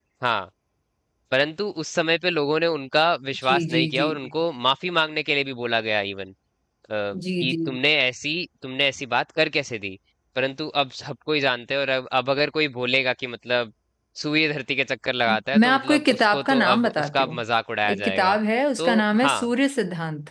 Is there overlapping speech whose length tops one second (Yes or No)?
Yes